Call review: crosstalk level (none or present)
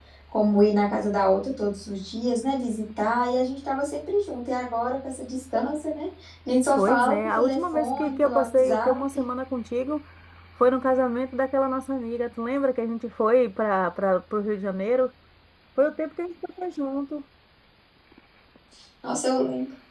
present